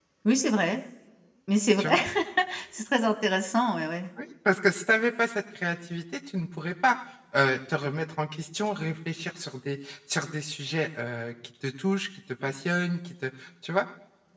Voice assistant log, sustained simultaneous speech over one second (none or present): none